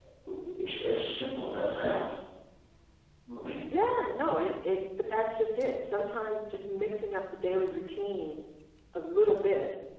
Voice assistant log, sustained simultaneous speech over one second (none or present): none